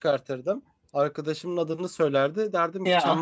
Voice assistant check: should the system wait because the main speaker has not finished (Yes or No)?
Yes